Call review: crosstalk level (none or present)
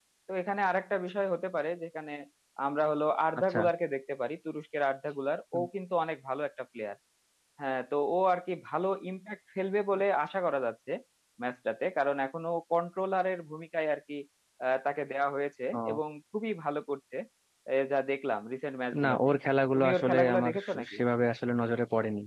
present